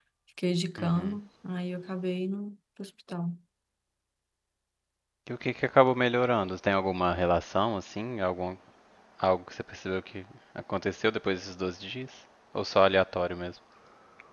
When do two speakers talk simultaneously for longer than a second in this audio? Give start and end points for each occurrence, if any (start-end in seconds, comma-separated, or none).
none